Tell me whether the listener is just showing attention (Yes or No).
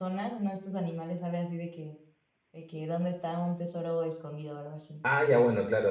No